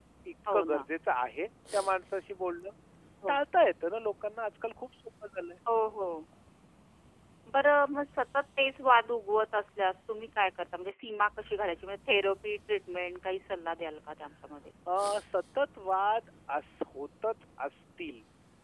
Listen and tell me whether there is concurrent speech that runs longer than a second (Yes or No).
No